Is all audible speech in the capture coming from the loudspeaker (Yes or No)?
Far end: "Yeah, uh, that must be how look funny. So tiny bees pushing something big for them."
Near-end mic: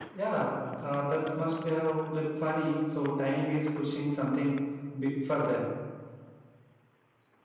Yes